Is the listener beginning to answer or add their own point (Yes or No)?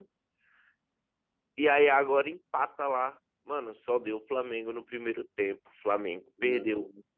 No